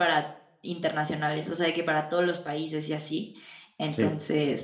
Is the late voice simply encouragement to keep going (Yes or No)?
Yes